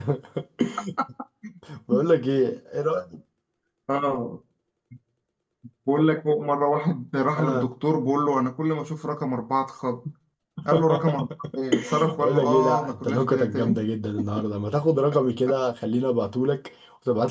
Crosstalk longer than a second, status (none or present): present